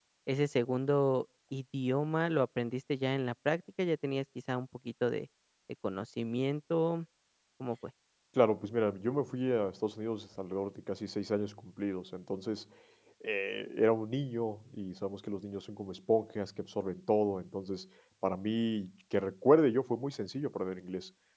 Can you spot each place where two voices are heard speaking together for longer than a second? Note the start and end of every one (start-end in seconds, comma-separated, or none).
none